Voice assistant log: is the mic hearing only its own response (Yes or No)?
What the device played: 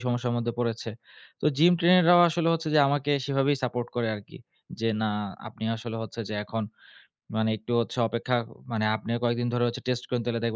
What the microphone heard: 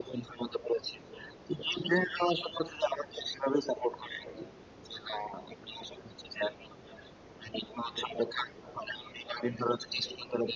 Yes